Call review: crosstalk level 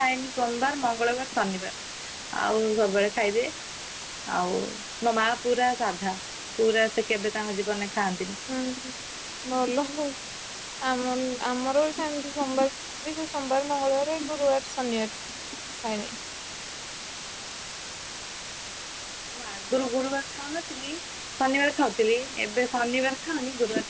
none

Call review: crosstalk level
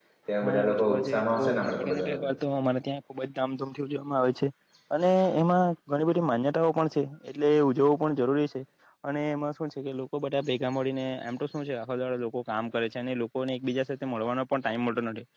present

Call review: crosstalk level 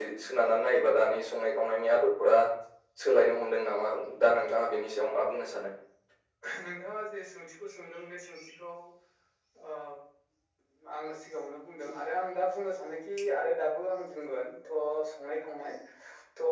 none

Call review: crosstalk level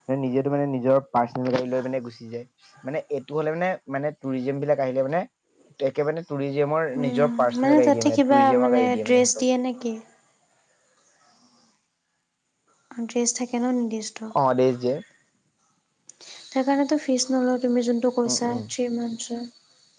present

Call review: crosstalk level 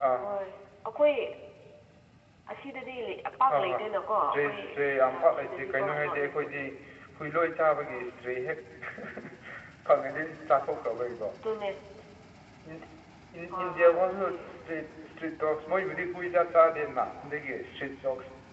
present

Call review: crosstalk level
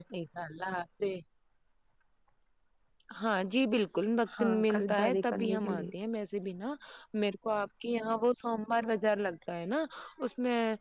present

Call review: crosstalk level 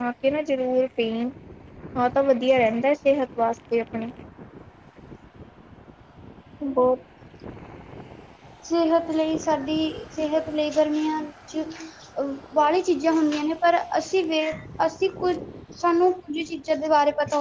none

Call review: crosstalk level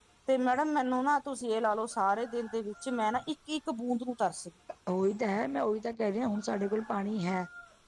none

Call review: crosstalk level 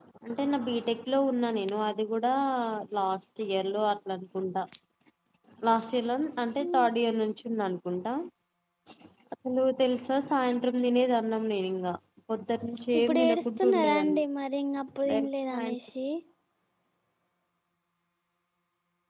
present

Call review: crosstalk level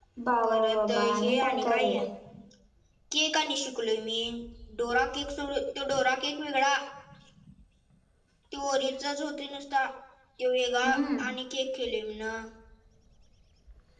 present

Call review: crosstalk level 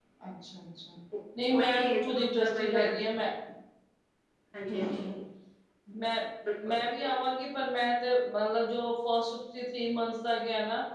present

